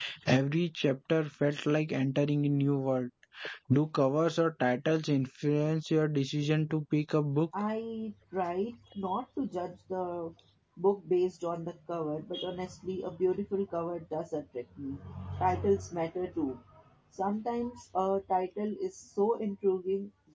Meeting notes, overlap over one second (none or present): none